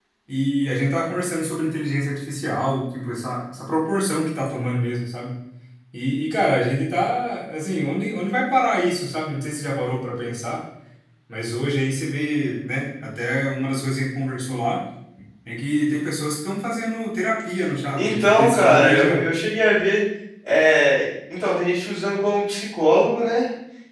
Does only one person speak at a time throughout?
No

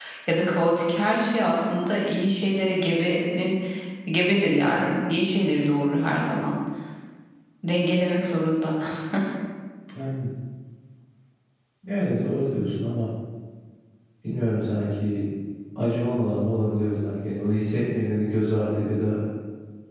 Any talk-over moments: No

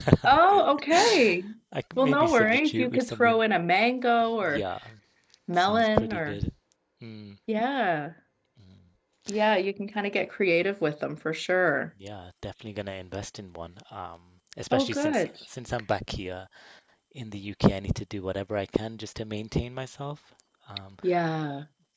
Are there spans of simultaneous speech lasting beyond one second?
Yes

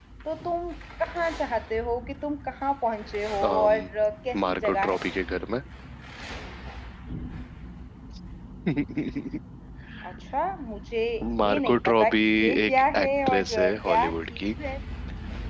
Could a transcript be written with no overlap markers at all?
No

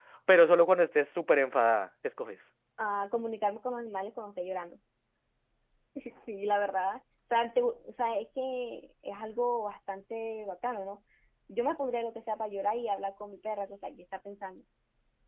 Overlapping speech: No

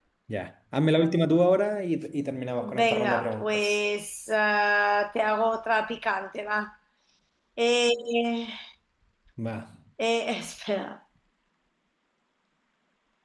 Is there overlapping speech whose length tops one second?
Yes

